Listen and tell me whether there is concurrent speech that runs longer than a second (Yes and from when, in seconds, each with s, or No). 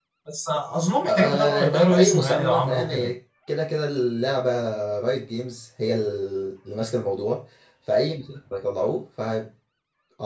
Yes, from 1.1 s